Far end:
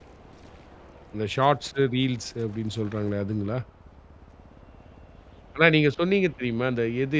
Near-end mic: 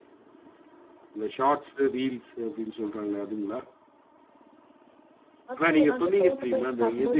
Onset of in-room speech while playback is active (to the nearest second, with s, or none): 6 s